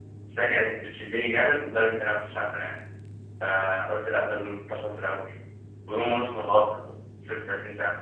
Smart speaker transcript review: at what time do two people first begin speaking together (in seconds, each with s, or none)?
none